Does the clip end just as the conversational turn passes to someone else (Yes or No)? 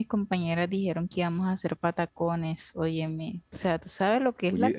Yes